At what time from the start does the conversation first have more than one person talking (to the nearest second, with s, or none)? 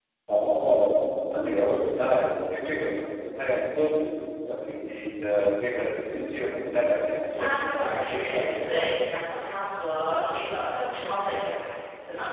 7 s